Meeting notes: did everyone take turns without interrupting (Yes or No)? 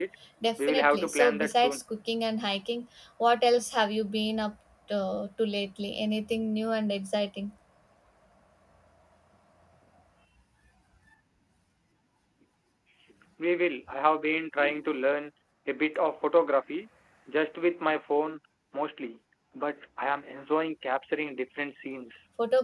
No